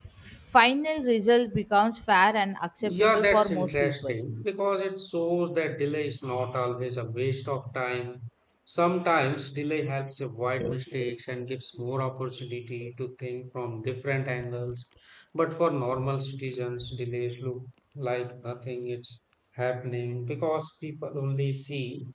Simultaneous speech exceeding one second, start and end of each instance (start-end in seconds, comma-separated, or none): 2.8-4.2